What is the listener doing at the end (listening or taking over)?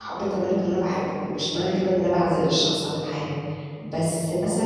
listening